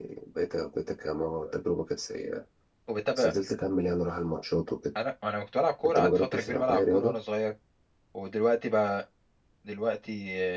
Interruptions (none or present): present